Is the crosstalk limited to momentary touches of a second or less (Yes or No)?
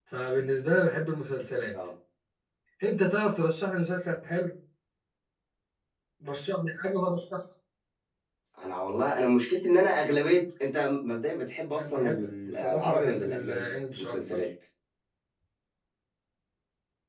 No